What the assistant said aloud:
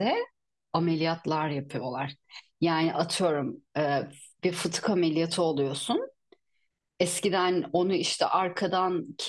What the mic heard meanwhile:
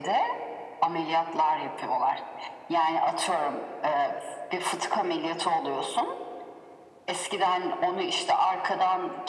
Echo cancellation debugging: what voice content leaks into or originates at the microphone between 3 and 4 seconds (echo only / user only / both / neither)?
echo only